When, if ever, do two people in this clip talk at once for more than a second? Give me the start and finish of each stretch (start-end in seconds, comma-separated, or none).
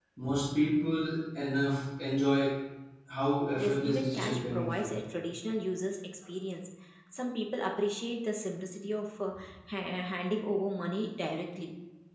3.6-5.0